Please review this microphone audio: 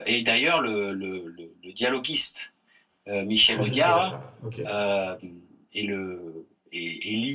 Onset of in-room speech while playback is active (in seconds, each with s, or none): 3.4 s